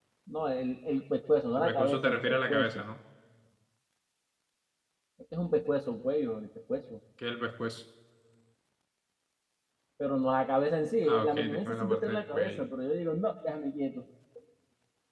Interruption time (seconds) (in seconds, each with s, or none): 1.6 s